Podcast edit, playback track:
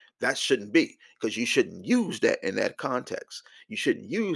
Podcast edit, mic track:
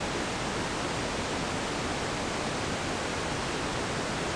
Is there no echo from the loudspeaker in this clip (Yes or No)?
Yes